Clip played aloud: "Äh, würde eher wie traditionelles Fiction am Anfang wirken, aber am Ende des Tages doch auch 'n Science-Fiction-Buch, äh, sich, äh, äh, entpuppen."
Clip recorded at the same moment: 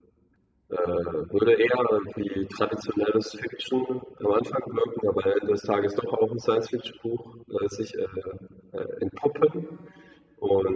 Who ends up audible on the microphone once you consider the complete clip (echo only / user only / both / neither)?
echo only